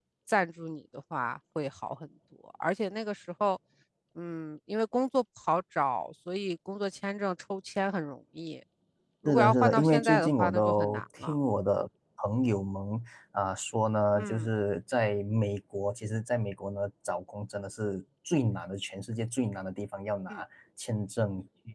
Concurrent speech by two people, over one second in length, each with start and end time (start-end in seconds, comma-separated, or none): 9.2-11.3